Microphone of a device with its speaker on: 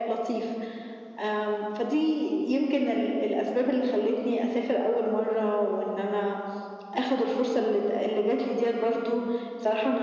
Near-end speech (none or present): none